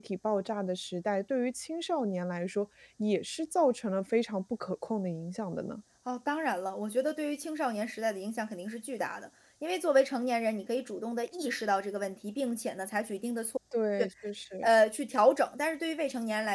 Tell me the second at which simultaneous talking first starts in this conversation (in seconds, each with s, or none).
none